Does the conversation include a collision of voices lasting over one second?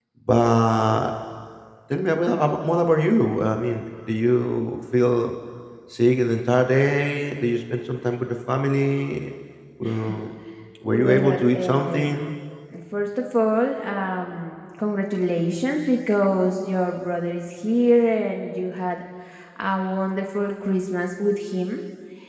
Yes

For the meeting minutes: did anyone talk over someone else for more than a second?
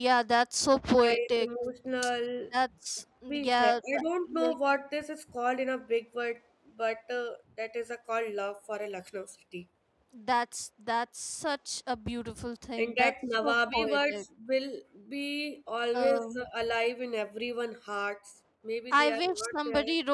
Yes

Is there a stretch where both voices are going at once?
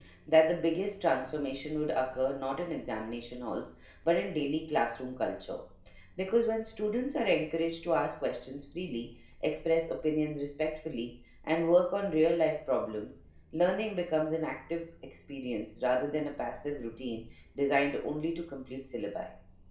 No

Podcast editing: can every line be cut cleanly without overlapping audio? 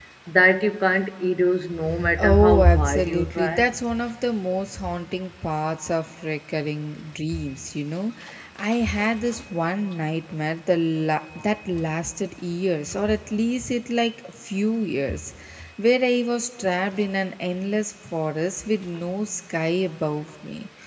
No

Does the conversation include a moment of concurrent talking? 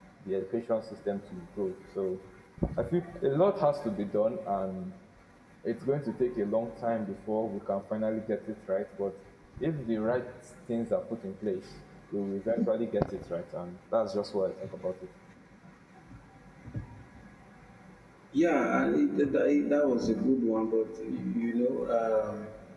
No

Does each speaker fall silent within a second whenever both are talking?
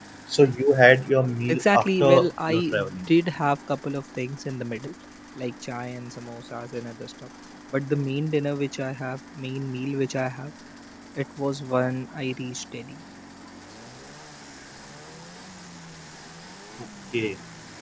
No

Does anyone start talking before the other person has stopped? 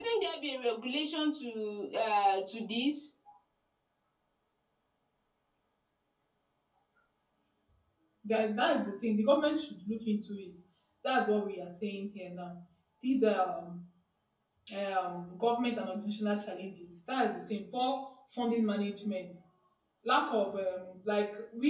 No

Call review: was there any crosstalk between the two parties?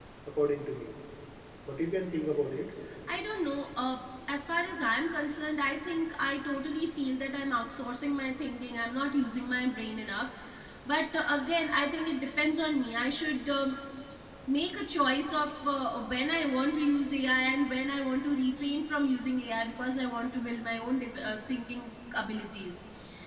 No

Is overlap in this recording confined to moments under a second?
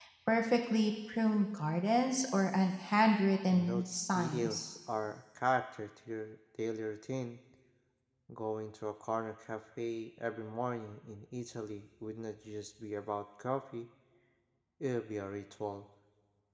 No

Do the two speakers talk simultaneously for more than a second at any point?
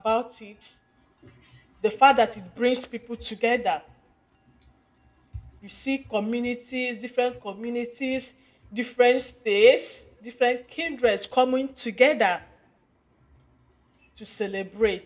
No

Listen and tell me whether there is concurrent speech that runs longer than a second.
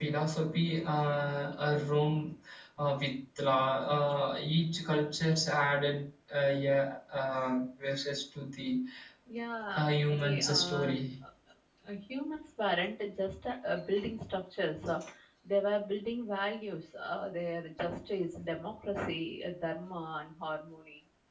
Yes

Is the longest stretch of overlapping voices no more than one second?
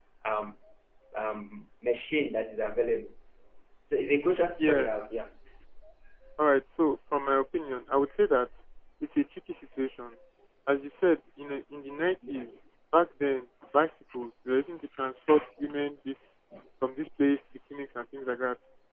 Yes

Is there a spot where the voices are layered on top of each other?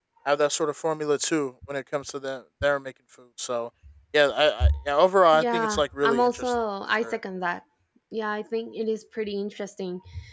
Yes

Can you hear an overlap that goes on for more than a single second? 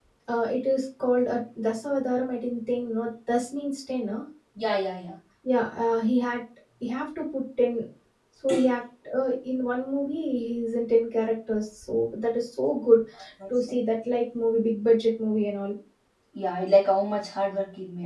No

